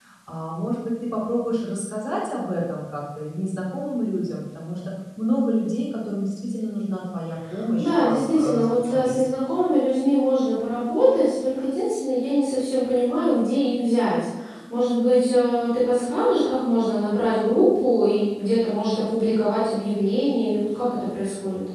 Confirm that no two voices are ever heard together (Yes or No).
No